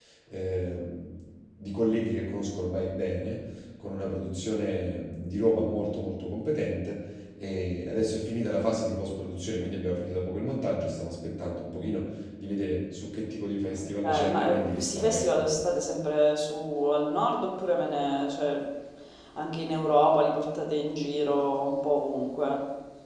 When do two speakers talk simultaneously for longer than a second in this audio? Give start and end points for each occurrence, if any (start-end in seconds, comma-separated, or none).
14.0-15.4